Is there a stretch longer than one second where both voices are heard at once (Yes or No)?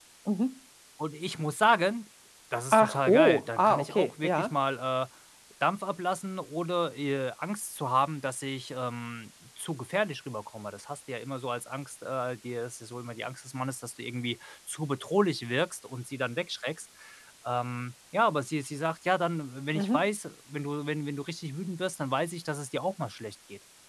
Yes